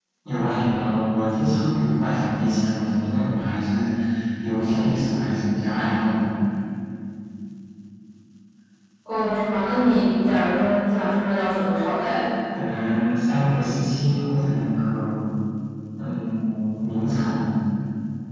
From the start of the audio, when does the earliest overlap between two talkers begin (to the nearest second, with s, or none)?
none